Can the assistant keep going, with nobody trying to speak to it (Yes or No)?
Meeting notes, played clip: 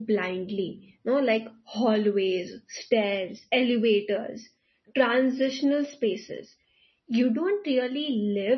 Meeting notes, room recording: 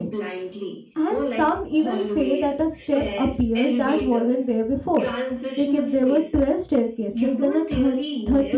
No